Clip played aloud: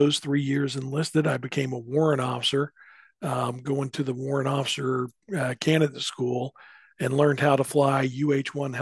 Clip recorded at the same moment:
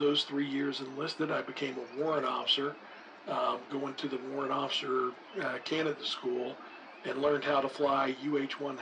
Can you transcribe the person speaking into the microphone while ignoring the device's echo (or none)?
none